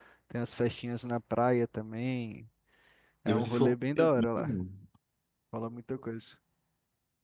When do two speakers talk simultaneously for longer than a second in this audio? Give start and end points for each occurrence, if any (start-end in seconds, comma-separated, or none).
3.3-4.5